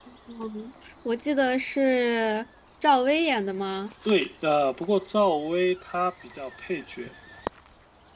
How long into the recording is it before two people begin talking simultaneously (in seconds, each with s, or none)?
none